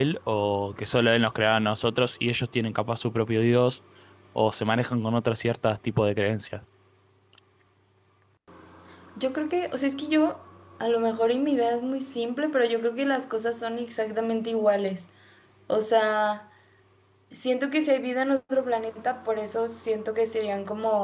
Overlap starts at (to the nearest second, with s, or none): none